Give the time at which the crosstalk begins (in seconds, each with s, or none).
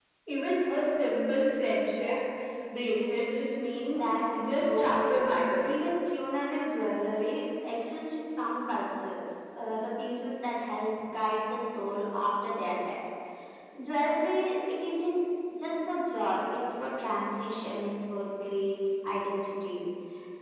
3.9 s